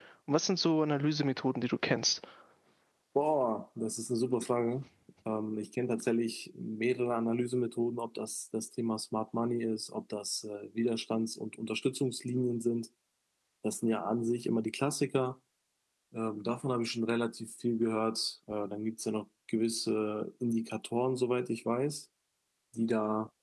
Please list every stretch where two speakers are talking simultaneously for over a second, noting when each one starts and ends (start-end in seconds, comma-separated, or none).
none